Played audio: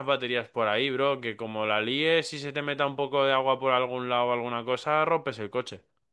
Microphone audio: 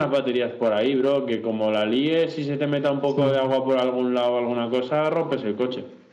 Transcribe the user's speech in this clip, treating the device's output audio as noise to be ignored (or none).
sí,